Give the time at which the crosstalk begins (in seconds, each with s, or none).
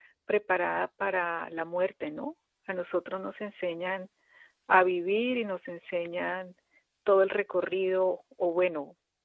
none